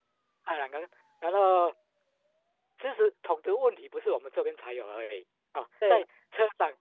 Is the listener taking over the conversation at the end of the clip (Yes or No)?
No